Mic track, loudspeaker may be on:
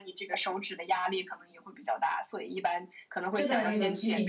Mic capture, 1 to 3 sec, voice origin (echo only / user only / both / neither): echo only